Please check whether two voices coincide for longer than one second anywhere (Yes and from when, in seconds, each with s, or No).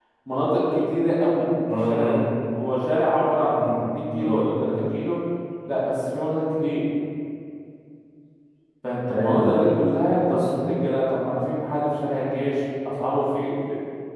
No